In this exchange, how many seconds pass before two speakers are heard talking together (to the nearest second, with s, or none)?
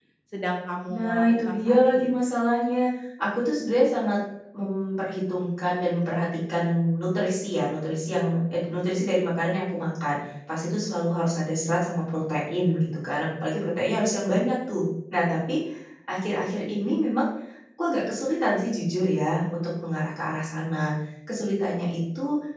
1 s